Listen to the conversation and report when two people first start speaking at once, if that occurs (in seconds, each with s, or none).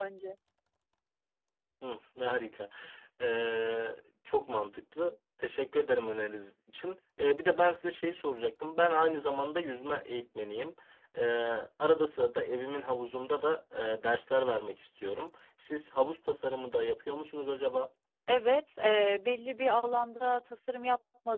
none